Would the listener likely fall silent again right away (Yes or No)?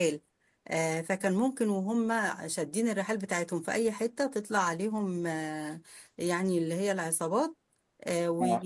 Yes